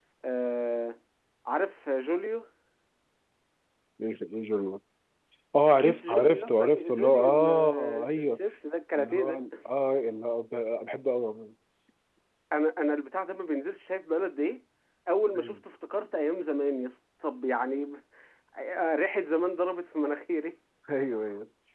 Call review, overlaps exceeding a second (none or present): present